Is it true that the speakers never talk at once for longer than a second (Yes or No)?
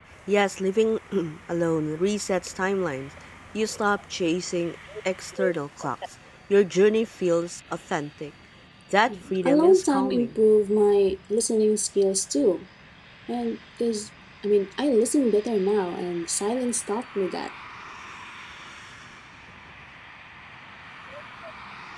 No